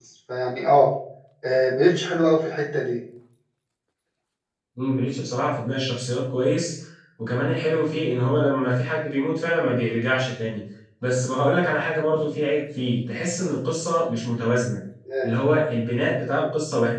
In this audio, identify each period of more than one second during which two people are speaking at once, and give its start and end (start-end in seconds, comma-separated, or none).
none